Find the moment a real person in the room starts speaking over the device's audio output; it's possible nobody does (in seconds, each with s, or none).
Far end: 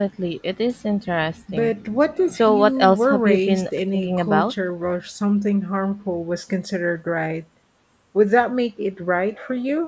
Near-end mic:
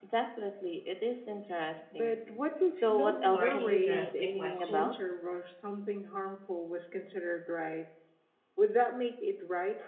2.9 s